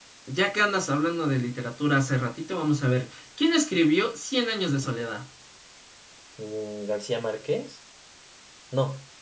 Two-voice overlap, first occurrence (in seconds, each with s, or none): none